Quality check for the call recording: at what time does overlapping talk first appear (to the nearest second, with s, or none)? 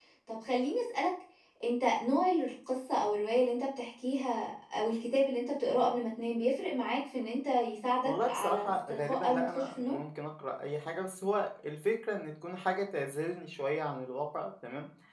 8 s